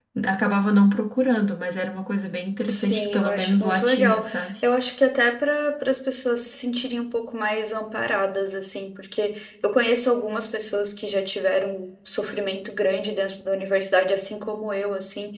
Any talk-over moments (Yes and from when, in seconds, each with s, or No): Yes, from 2.7 s